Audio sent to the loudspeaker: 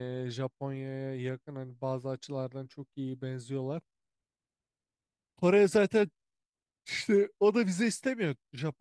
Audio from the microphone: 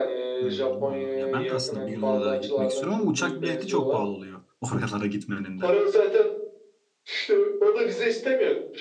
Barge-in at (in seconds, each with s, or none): 0.4 s